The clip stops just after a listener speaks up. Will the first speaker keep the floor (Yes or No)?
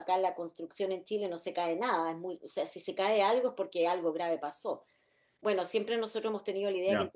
Yes